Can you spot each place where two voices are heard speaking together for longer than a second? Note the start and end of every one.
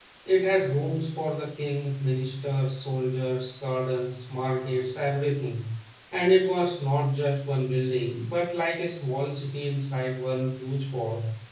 none

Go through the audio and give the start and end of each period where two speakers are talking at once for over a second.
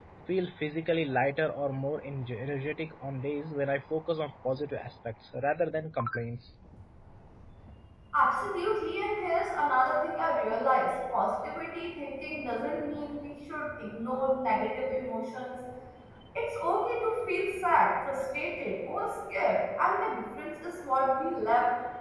none

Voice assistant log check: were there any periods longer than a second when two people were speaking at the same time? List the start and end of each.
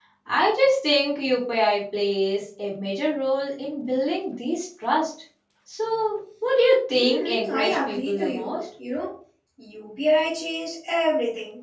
6.9-8.6

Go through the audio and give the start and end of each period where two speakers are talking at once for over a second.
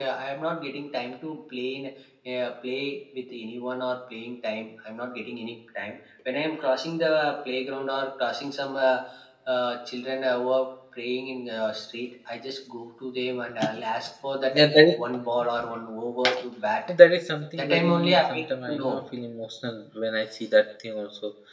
17.6-19.0

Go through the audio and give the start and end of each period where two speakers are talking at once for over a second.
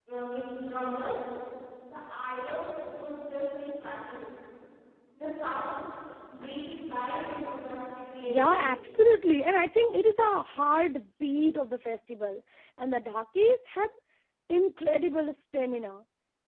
none

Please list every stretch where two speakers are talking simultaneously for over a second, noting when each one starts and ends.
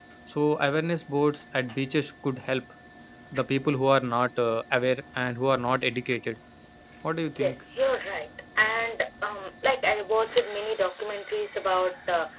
none

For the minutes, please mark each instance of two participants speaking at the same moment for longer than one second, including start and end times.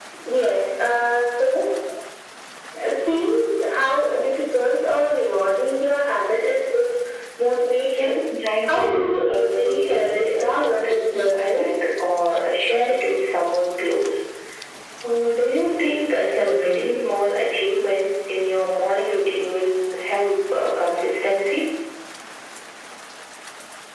8.7-11.7

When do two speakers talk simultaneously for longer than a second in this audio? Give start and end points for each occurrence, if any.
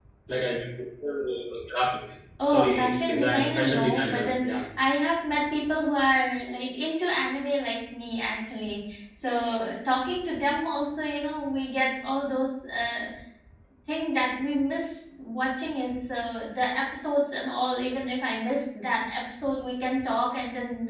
2.4-4.6

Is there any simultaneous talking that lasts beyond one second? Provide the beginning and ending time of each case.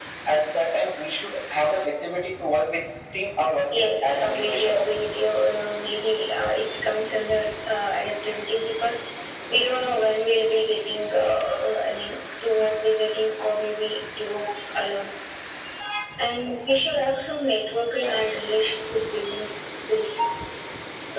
3.8-5.0

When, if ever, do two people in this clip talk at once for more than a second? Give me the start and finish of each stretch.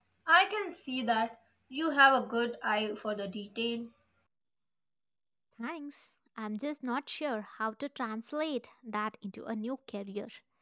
none

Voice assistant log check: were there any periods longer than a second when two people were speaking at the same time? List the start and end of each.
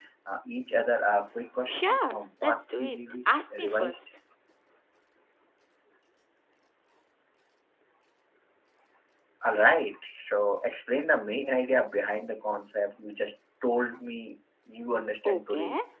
1.7-4.0

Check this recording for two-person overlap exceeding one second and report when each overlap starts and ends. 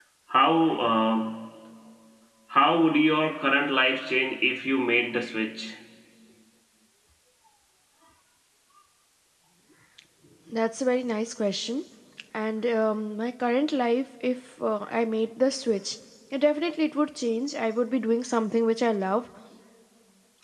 none

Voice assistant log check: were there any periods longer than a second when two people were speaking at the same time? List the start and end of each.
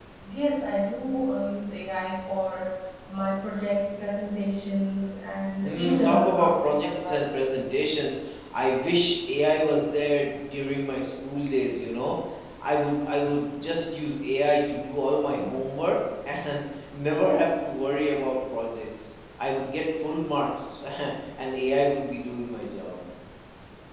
5.6-7.2

